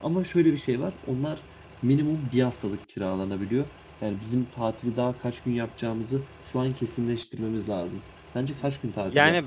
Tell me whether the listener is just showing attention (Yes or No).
No